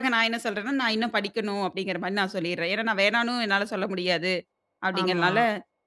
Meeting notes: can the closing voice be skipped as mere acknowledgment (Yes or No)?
Yes